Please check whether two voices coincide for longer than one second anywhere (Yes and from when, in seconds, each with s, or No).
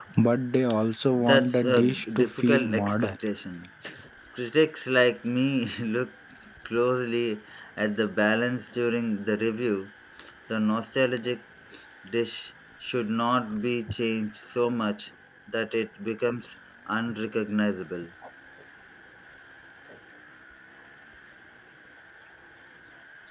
Yes, from 1.1 s